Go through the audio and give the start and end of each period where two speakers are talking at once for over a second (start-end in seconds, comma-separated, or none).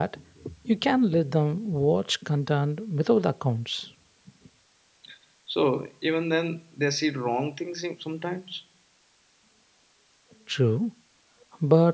none